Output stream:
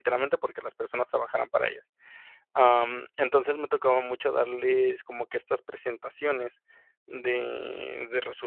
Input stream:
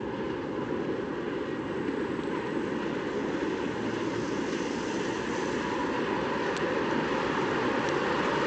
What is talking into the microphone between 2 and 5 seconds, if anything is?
neither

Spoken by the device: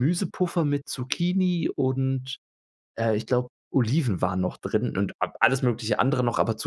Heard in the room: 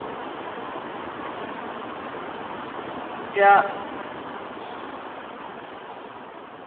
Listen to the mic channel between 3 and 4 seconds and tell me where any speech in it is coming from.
user only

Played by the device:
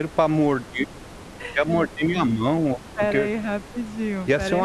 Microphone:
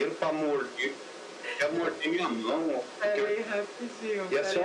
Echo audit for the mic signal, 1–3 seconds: echo only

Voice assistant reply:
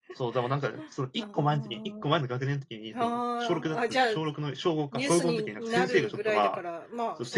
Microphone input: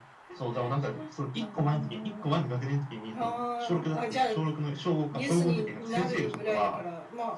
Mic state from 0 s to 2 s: echo only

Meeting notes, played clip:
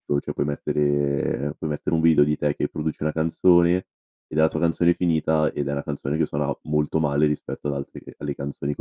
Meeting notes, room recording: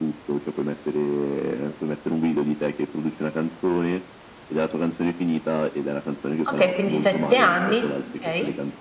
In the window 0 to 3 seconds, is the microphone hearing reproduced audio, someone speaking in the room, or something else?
echo only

